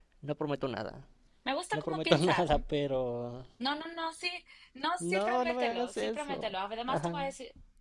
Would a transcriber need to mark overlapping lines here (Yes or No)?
Yes